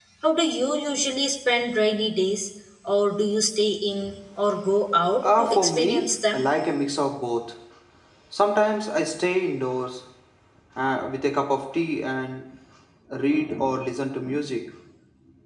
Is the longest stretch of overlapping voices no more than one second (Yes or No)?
No